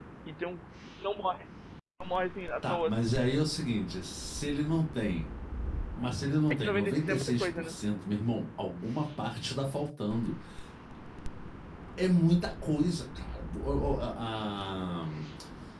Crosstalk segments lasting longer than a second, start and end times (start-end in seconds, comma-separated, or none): 6.5-7.7